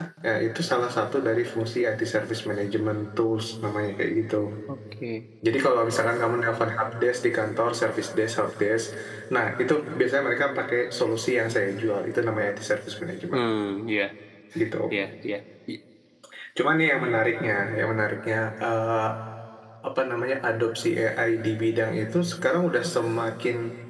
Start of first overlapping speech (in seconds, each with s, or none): none